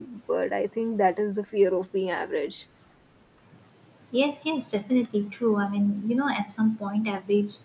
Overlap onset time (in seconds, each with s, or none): none